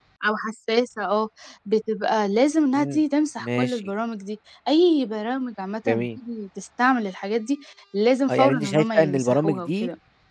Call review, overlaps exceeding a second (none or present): present